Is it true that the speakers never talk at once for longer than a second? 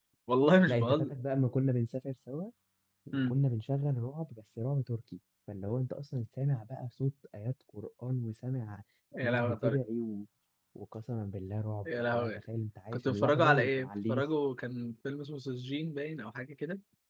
No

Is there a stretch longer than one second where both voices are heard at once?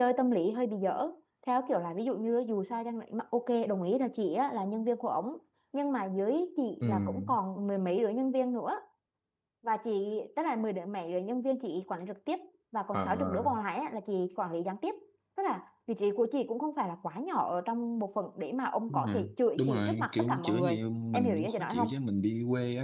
Yes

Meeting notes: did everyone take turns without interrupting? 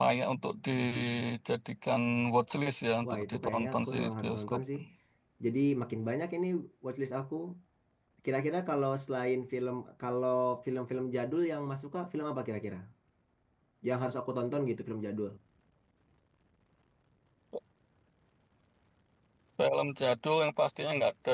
No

